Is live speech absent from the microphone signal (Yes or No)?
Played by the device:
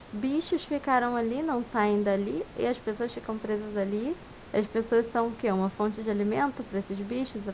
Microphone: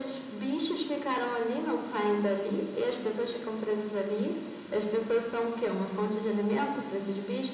Yes